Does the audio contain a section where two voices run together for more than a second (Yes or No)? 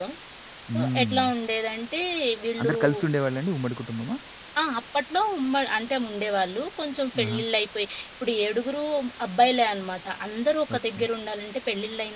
No